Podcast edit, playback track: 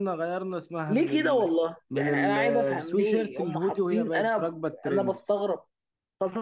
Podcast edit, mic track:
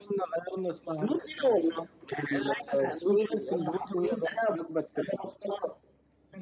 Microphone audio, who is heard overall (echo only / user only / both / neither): echo only